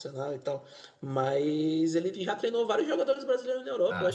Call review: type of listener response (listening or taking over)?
listening